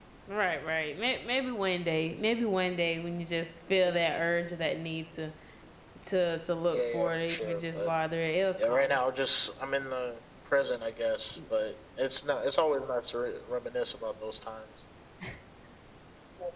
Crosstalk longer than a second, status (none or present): present